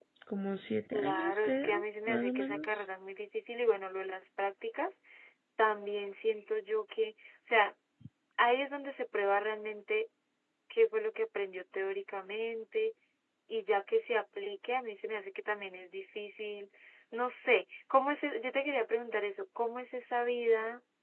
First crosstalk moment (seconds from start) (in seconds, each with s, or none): 0.9 s